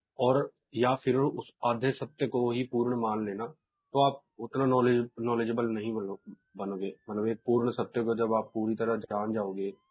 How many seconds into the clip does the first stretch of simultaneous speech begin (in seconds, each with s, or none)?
none